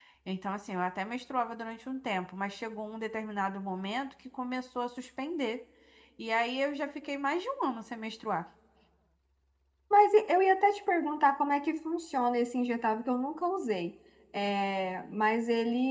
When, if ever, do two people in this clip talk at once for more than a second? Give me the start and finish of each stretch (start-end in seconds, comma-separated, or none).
none